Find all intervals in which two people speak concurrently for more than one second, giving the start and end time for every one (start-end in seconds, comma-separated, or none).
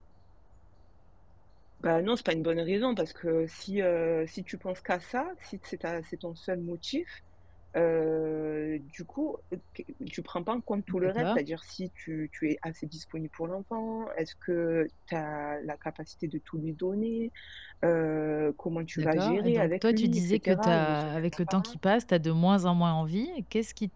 18.9-21.8